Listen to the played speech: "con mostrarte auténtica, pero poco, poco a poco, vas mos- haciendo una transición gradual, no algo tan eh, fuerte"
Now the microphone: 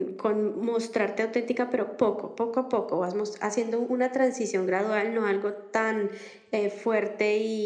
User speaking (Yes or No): No